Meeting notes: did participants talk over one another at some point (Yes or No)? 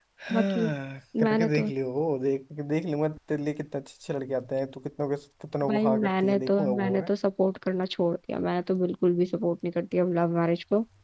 Yes